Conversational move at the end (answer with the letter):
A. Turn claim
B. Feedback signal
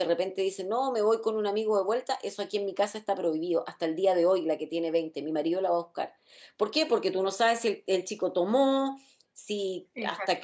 B